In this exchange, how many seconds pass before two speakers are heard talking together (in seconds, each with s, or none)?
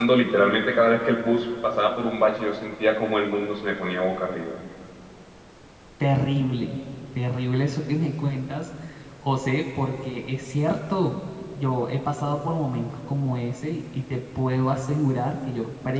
none